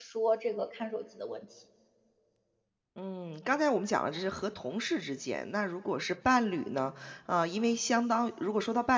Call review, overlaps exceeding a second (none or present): none